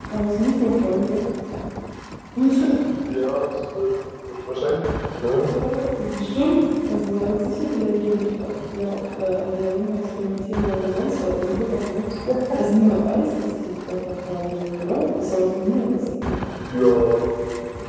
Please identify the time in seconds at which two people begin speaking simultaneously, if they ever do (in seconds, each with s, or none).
none